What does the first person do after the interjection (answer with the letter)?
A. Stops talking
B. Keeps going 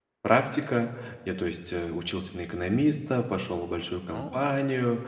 B